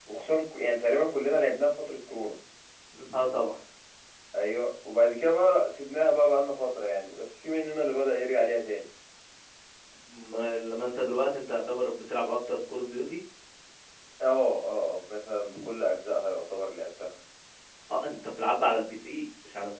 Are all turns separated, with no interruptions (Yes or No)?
Yes